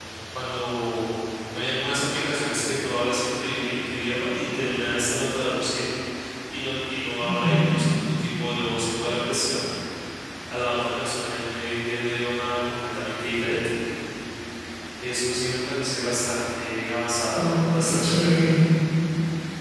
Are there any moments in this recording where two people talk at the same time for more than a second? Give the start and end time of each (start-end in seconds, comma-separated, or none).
17.4-18.6